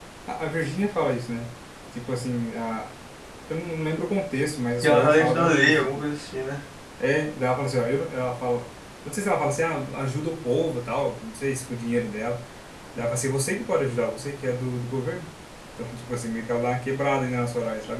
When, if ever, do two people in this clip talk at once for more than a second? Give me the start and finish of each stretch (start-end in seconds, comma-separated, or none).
4.8-6.0